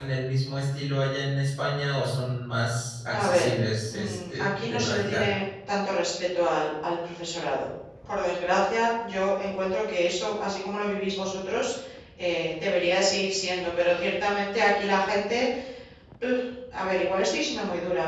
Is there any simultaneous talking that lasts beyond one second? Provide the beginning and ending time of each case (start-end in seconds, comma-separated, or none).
4.0-5.3